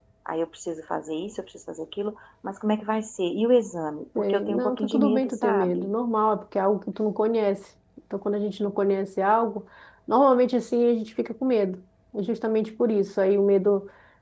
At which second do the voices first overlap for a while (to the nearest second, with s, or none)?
4 s